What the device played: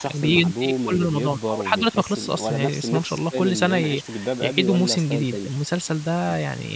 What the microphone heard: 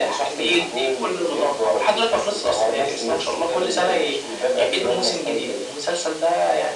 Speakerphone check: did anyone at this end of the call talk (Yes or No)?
No